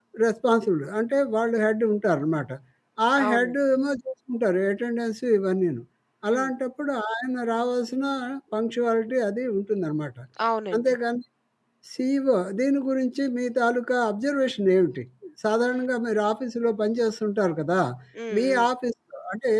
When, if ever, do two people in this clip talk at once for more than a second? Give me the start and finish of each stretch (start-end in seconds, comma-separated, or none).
none